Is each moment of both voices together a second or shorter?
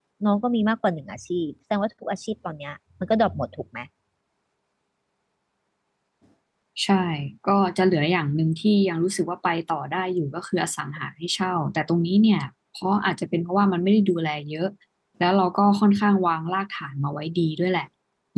Yes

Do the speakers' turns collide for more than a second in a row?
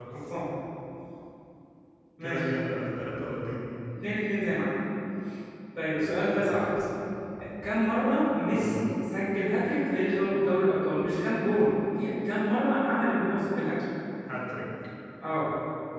No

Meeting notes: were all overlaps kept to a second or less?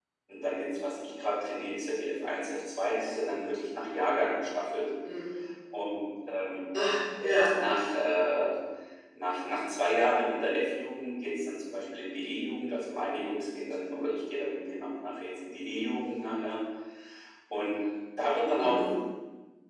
Yes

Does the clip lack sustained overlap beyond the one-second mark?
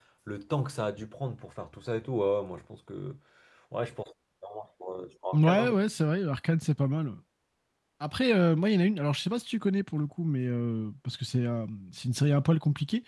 Yes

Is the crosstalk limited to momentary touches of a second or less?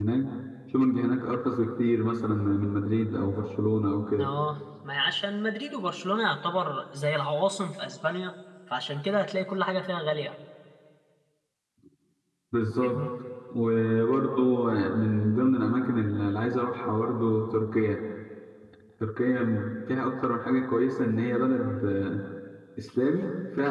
Yes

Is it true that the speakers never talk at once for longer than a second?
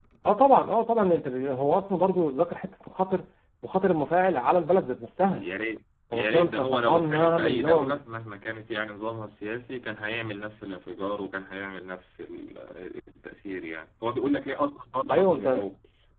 No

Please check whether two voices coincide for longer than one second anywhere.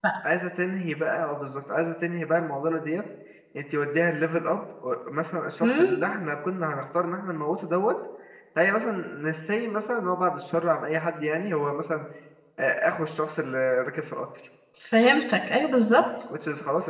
No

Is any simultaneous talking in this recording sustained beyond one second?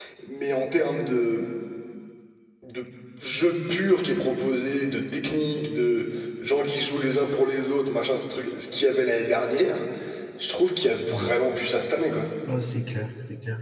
No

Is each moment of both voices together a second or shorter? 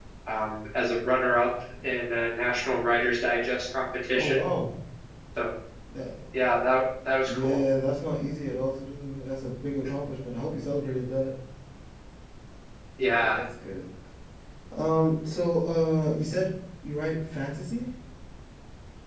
Yes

